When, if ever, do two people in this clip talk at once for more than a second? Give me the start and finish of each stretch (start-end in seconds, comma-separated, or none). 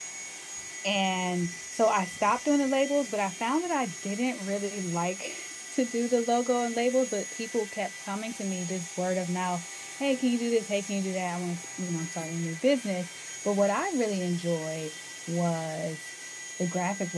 none